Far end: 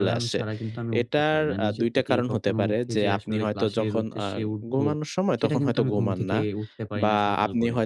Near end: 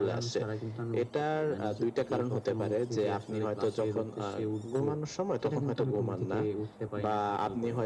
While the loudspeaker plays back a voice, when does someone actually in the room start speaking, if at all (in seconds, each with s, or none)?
none